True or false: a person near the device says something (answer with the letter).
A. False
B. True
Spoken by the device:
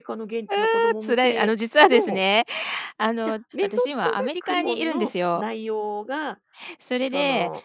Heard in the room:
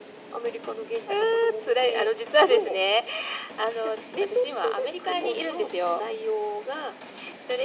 A